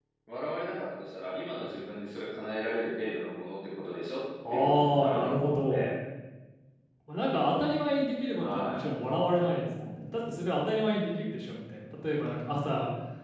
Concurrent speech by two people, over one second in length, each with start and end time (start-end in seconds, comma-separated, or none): 4.5-5.9